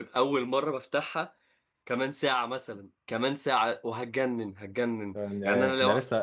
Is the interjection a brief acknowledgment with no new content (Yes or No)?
No